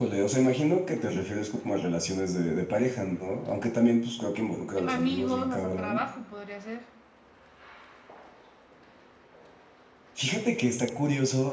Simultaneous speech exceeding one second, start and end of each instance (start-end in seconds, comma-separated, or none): 4.8-6.0